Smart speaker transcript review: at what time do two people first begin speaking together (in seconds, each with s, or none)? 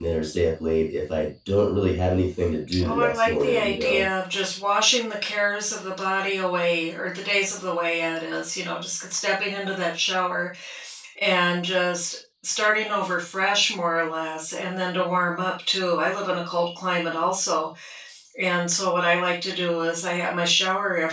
2.7 s